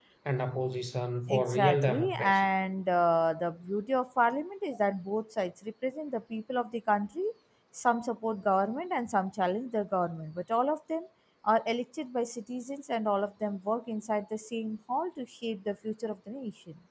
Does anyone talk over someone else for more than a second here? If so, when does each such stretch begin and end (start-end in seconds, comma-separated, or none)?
1.3-2.5